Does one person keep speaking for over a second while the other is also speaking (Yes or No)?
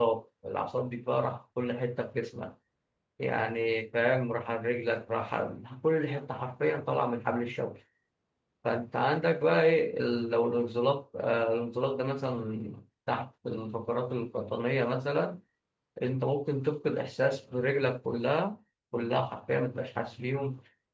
No